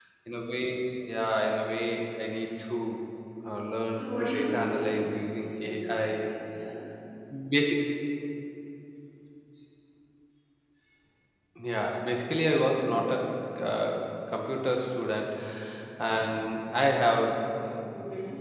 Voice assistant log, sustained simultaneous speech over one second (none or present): present